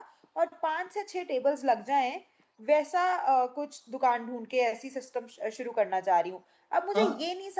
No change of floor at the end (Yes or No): Yes